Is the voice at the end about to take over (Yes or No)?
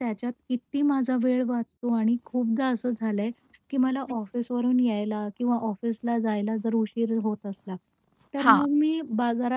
No